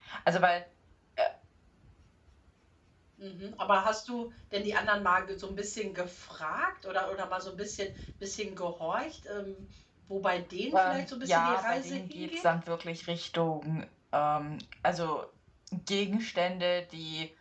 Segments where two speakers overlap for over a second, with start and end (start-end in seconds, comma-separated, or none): 10.7-12.4